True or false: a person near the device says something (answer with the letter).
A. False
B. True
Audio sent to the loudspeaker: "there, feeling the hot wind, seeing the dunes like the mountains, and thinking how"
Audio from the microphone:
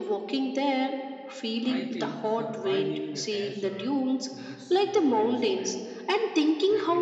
B